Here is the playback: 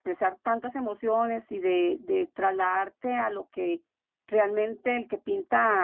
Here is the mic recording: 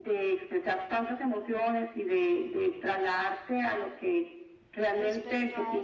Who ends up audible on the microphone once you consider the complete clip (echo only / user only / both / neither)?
both